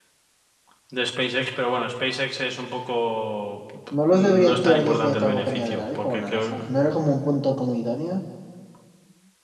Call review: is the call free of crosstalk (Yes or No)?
No